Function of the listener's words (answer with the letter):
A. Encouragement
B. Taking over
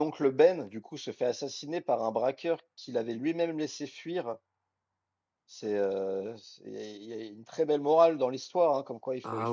A